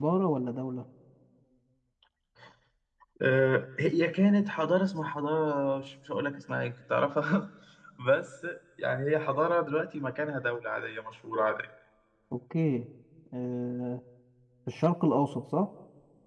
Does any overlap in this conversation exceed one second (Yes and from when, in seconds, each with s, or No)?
No